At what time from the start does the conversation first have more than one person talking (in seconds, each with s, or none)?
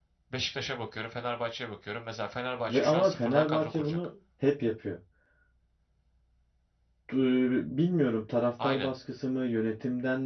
2.7 s